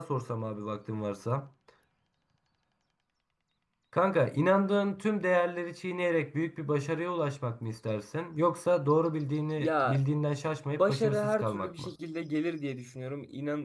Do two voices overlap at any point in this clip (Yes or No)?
Yes